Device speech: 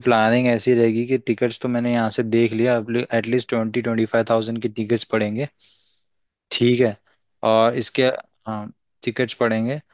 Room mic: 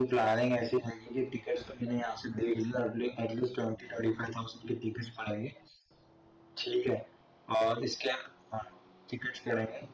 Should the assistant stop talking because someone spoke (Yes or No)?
No